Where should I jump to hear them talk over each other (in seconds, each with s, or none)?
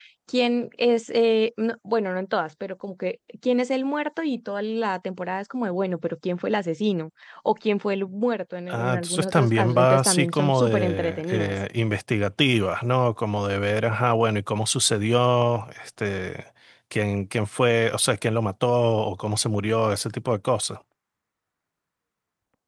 8.7 s